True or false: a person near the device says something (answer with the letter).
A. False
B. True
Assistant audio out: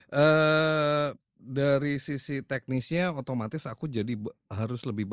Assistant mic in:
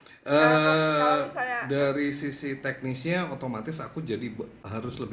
B